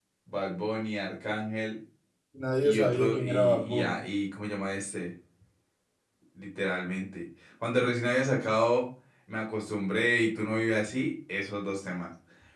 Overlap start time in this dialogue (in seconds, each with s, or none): 2.6 s